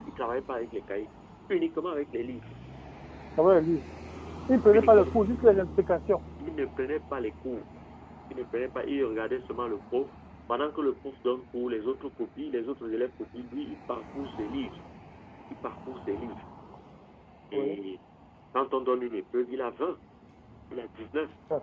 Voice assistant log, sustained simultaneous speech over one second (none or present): none